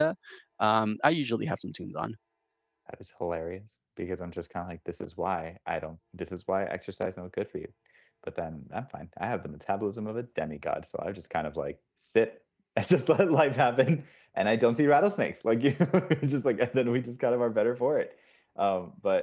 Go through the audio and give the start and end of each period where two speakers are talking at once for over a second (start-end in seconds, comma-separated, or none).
none